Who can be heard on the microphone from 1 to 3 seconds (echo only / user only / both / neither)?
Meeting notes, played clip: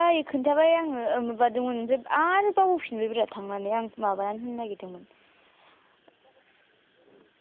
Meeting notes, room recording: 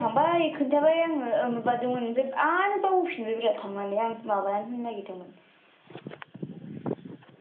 echo only